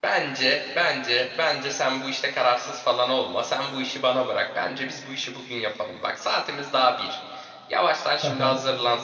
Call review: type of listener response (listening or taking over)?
listening